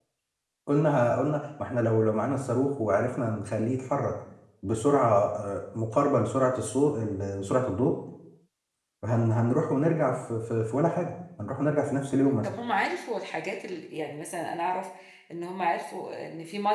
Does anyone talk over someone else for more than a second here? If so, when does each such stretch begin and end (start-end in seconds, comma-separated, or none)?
none